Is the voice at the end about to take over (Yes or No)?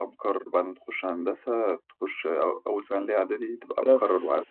Yes